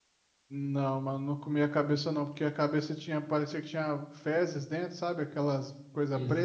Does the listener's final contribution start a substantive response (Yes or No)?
Yes